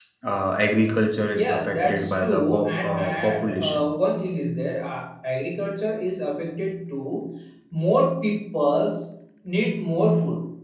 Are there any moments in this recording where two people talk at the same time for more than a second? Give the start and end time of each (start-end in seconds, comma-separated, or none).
1.3-3.9